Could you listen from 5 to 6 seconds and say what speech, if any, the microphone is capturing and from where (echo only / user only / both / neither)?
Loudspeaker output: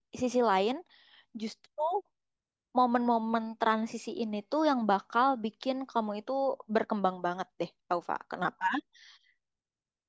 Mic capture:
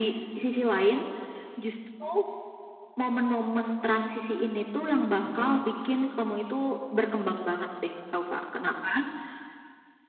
both